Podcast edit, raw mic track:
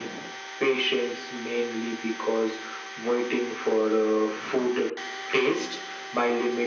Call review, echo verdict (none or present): present